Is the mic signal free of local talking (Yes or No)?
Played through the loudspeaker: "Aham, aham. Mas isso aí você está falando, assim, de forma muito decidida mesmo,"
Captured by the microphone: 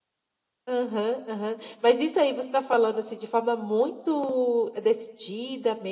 Yes